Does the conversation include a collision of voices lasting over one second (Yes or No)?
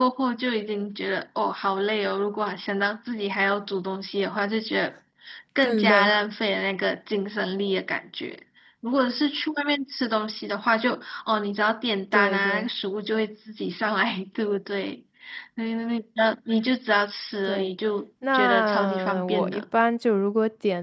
Yes